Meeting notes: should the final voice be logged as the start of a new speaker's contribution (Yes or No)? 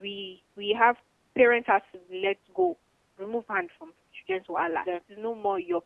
No